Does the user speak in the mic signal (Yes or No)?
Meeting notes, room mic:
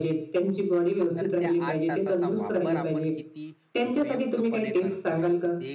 Yes